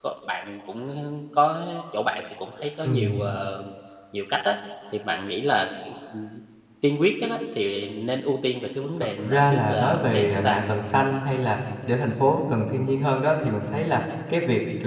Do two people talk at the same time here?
Yes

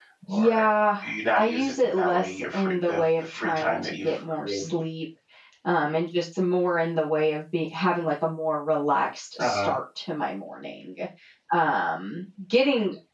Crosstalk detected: Yes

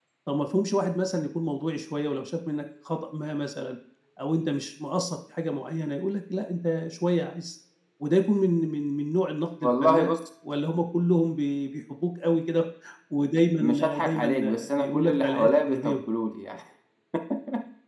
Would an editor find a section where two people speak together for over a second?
Yes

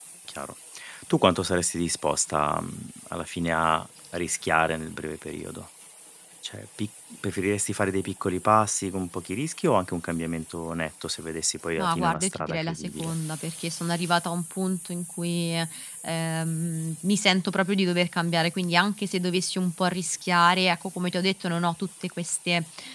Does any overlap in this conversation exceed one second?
Yes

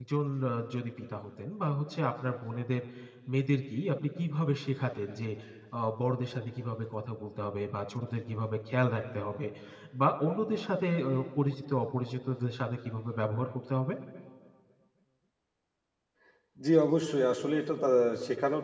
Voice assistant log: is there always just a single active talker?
Yes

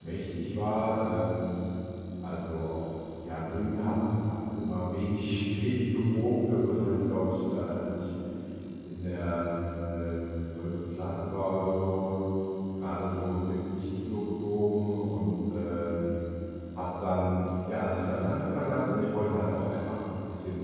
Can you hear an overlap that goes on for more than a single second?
No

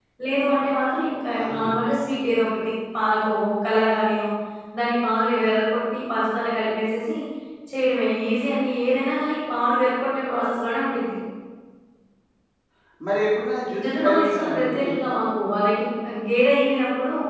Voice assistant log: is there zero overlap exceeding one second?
No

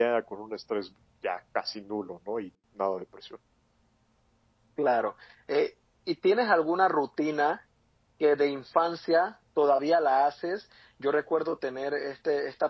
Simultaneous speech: No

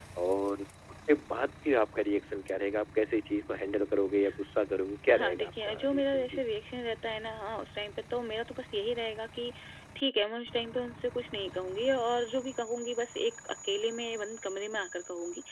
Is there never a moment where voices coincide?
No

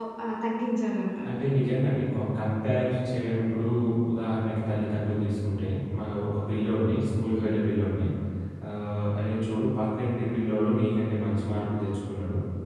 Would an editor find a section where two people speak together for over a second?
No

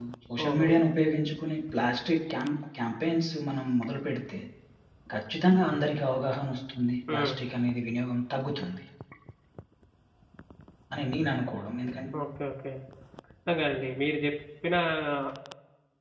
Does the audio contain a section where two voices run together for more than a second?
No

